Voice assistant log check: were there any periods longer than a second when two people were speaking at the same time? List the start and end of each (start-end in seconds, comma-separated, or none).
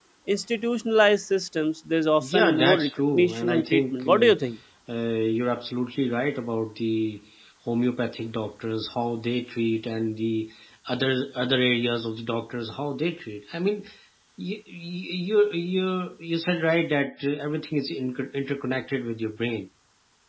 2.2-4.3